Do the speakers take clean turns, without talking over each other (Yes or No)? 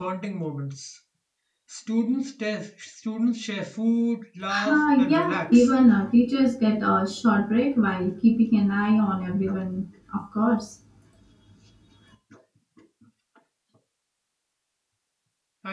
No